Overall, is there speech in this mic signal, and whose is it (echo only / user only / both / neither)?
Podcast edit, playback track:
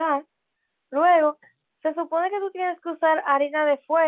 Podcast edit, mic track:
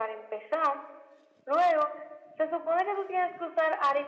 echo only